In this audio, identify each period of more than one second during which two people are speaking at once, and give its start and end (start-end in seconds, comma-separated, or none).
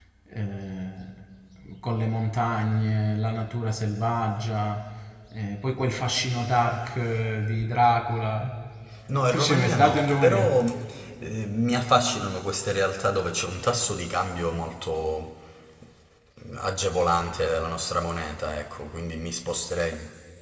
9.3-10.6